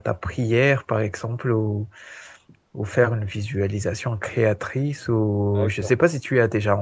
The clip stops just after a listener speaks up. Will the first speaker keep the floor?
Yes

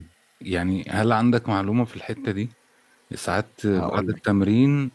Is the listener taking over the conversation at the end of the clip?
No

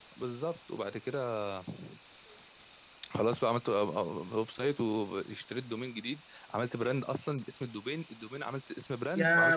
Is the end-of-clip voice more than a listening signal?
Yes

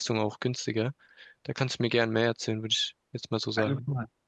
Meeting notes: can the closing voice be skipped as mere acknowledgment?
No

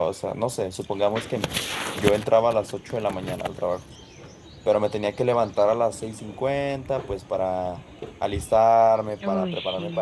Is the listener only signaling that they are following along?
Yes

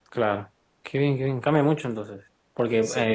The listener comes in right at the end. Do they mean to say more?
No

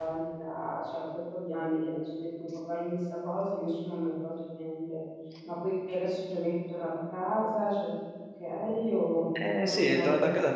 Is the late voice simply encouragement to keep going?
No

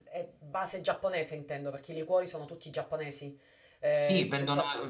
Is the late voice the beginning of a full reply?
Yes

